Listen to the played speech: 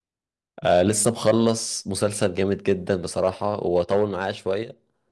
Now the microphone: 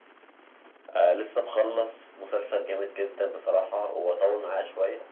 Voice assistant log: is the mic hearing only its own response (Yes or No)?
Yes